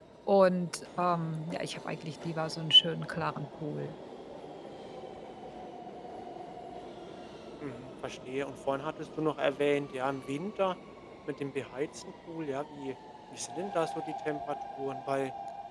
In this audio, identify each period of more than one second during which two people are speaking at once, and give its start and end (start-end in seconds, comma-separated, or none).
none